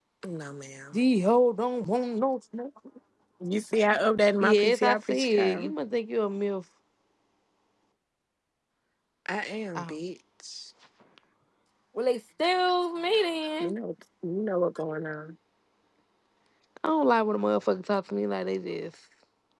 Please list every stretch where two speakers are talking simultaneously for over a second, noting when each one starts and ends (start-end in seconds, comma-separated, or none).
4.4-5.7